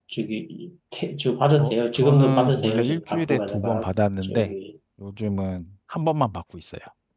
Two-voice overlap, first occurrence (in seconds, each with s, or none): 1.6 s